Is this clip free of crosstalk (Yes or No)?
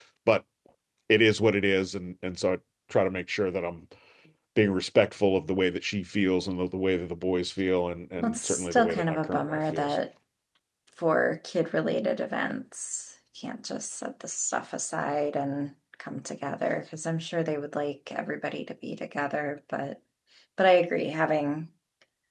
No